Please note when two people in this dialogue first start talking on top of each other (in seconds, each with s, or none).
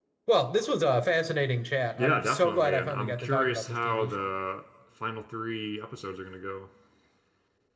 2.0 s